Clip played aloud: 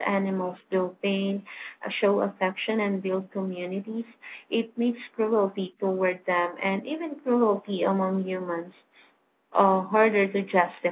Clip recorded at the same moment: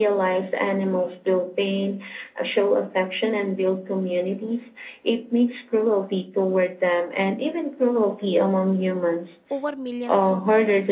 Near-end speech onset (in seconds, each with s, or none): 9.5 s